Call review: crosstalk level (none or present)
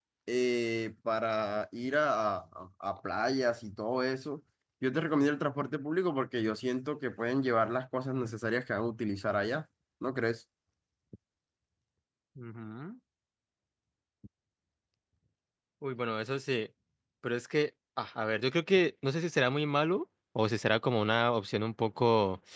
none